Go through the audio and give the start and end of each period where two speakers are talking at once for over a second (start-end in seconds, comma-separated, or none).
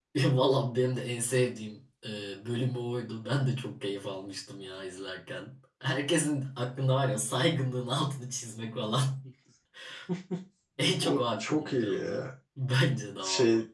11.0-12.3